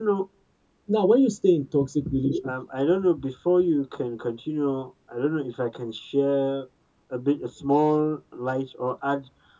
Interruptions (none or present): none